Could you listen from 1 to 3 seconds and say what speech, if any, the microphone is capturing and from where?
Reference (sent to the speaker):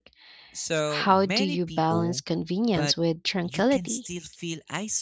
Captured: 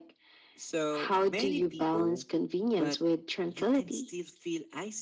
echo only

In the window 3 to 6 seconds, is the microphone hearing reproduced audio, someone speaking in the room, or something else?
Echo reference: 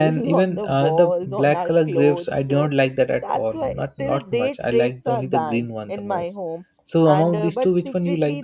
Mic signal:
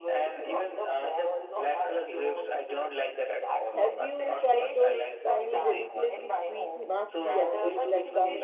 both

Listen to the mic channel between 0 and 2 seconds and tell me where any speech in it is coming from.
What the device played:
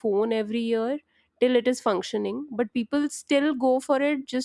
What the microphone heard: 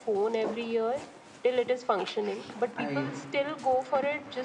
echo only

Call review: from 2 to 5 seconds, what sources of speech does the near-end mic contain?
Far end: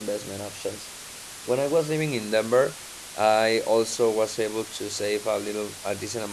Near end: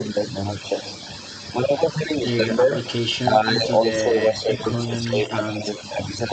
both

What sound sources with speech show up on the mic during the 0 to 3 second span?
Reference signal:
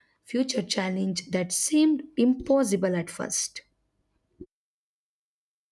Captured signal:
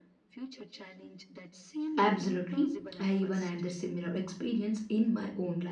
both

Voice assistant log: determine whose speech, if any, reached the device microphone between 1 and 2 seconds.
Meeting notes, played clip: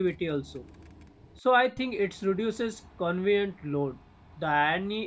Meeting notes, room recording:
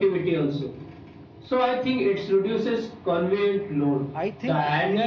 echo only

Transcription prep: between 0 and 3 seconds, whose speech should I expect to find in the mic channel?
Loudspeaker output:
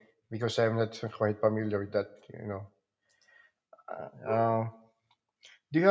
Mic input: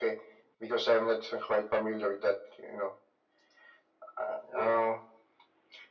echo only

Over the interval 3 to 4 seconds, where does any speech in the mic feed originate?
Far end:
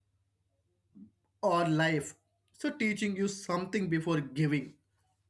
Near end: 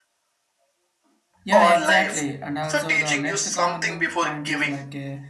both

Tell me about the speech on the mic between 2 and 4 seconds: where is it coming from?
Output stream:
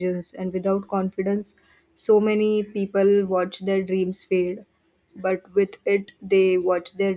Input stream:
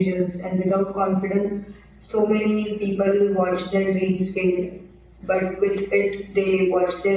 echo only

